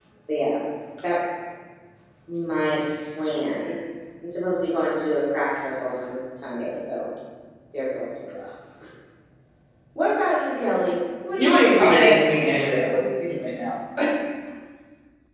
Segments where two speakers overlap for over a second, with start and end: 11.4-12.8

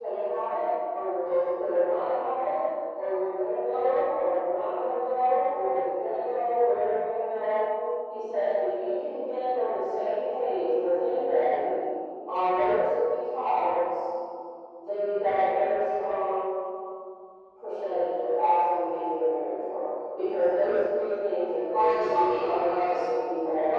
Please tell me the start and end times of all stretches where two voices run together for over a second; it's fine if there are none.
21.7-23.0

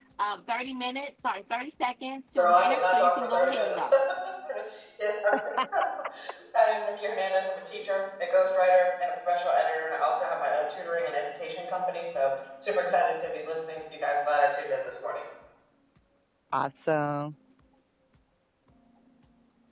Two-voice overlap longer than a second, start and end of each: 2.4-3.8

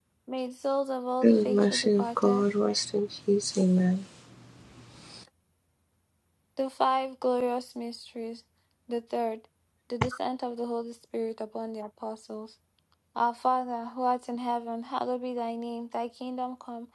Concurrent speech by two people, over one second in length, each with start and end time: 1.2-2.4

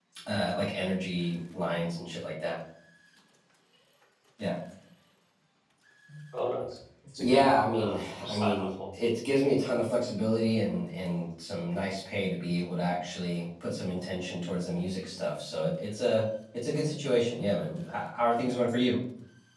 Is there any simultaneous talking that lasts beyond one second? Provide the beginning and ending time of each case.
7.2-8.7

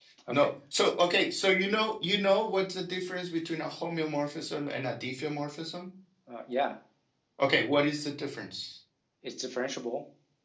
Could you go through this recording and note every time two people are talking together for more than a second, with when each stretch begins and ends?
none

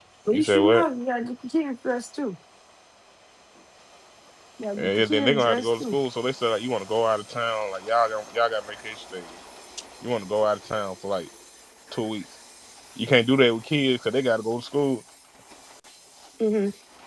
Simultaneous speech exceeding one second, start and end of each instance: 4.8-6.0

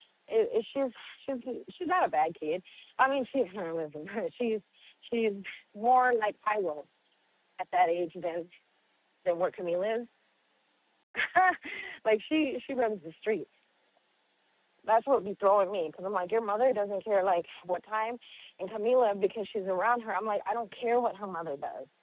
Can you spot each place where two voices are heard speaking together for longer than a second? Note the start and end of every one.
none

